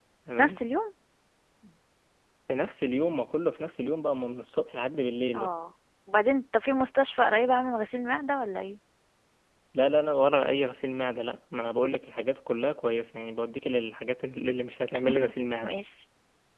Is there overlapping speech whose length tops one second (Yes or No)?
No